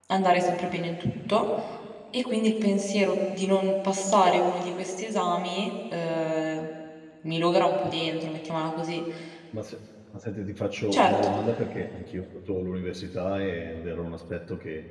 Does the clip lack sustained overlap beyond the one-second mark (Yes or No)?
Yes